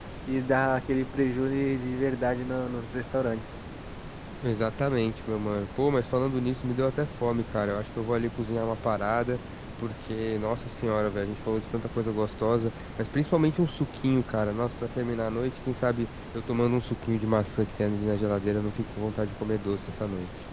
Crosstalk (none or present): none